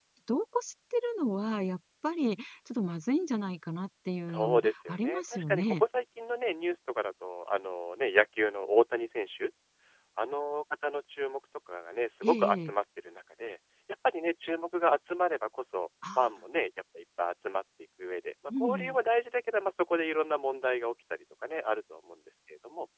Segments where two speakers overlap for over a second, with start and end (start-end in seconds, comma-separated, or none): 4.3-5.8